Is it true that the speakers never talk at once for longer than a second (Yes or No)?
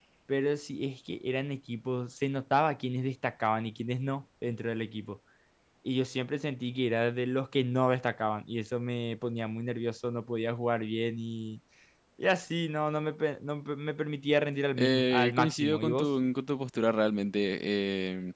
No